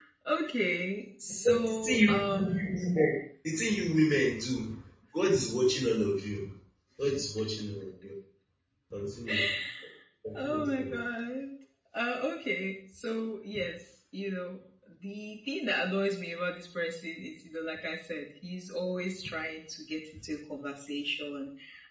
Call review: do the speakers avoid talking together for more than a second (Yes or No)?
No